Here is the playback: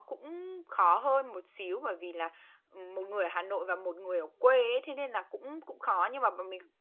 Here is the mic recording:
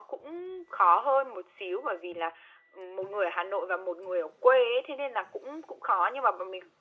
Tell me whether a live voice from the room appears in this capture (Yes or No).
No